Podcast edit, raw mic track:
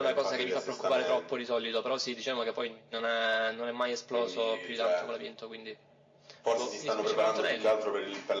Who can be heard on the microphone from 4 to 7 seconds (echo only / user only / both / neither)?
echo only